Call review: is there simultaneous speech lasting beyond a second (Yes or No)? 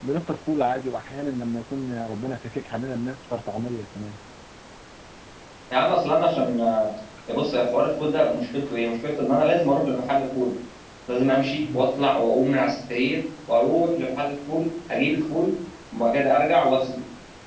No